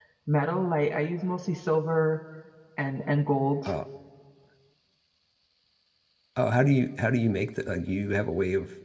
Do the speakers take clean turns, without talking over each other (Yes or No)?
Yes